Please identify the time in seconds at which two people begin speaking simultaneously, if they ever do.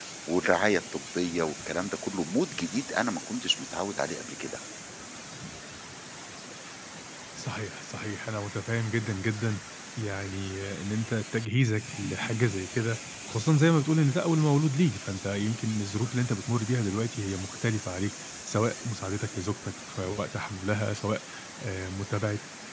none

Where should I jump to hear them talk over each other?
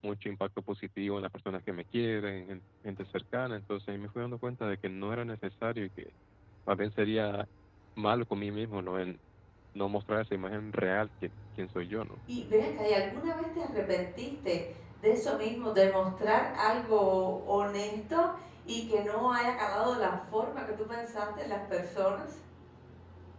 none

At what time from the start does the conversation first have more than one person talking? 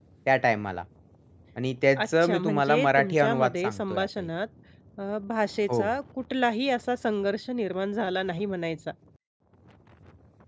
2.0 s

